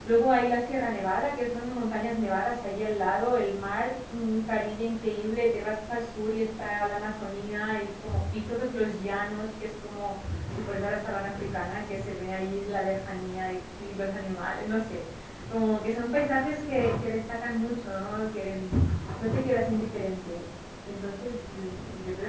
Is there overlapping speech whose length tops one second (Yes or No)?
No